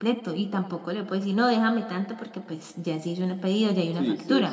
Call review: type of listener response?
taking over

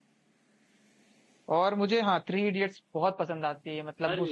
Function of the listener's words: listening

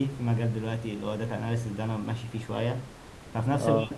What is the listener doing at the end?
listening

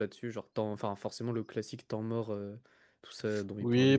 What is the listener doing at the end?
taking over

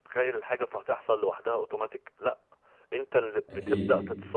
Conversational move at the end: listening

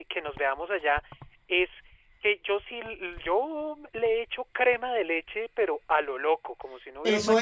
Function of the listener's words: taking over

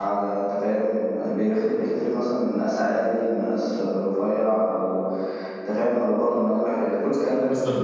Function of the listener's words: taking over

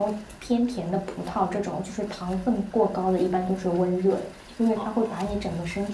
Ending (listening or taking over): listening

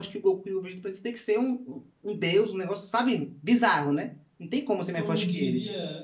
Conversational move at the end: taking over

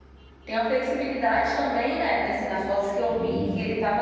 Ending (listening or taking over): listening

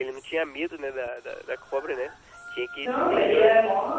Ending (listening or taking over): taking over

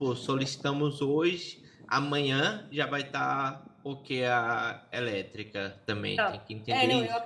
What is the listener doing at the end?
taking over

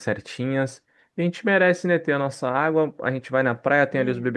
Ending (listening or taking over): listening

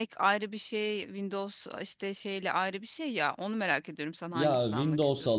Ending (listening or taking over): taking over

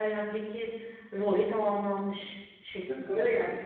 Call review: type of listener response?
listening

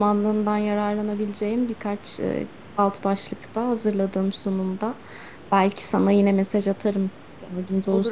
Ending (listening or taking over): taking over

